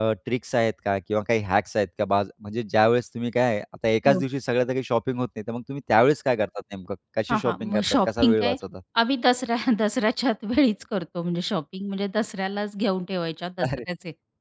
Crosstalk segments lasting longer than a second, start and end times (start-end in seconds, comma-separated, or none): 7.3-8.6